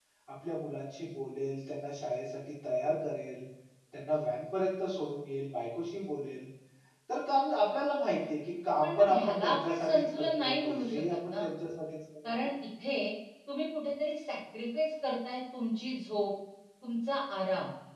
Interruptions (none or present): present